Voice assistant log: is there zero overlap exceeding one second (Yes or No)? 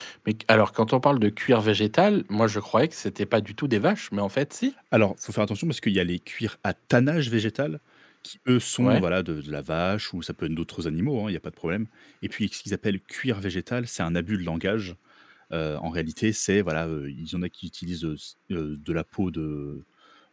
Yes